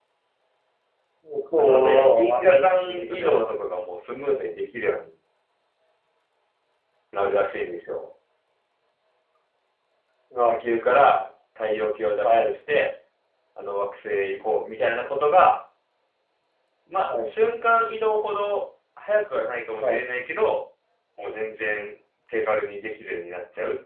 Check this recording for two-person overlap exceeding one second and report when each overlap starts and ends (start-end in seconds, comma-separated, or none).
1.6-3.5